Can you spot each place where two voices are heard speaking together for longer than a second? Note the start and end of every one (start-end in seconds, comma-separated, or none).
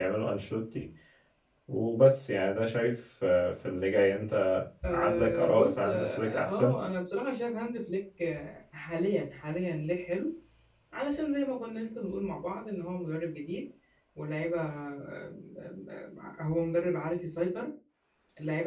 4.9-6.8